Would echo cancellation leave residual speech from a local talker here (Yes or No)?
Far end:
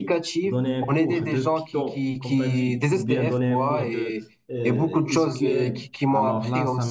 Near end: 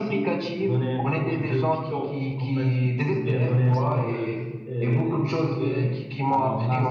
Yes